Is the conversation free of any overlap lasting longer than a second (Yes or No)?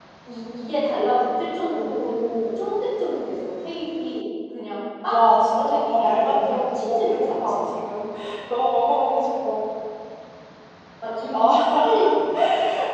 No